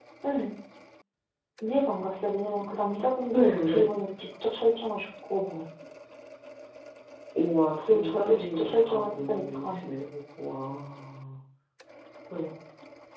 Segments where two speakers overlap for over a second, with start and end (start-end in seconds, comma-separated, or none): 7.8-9.8